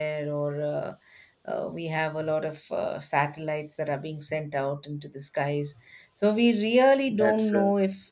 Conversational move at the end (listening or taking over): listening